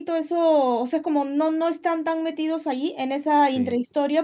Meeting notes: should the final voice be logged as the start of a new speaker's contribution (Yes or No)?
No